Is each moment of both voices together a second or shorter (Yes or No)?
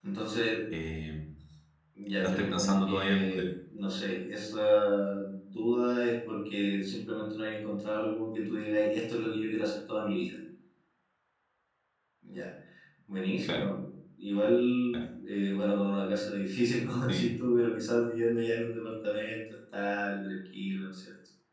No